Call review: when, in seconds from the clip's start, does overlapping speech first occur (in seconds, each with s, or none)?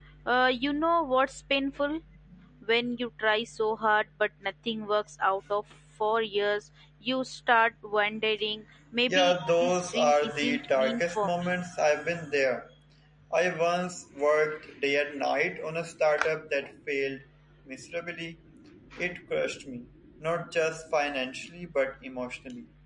9.1 s